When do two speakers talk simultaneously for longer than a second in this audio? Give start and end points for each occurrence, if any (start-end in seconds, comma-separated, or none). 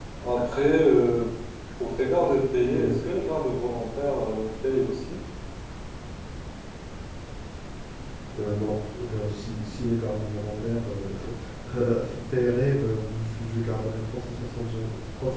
none